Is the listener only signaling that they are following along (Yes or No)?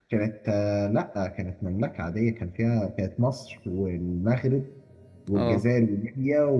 Yes